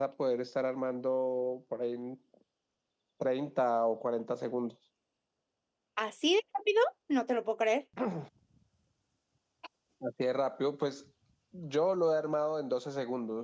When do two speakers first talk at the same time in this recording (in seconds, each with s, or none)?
none